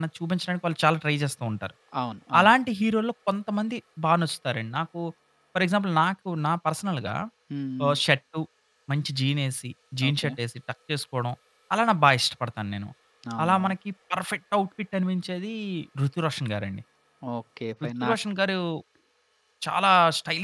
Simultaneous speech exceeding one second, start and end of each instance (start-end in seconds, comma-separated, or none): none